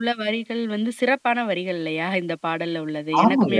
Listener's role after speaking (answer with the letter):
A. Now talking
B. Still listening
A